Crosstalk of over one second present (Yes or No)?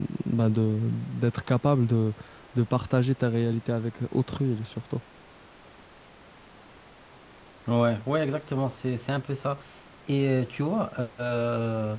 No